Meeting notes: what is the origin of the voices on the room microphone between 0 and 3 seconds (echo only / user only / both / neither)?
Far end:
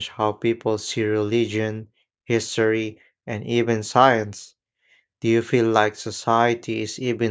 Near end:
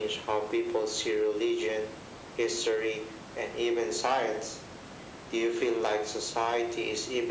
echo only